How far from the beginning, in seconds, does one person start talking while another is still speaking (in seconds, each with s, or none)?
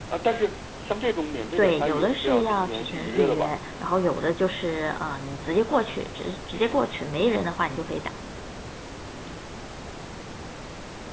1.6 s